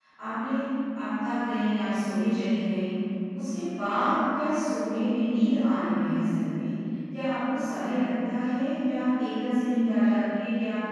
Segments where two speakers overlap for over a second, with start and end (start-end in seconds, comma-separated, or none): none